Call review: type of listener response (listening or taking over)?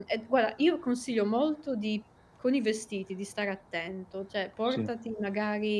listening